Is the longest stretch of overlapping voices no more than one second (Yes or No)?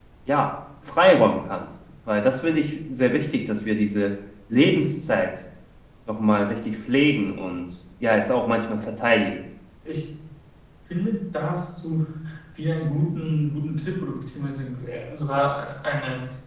Yes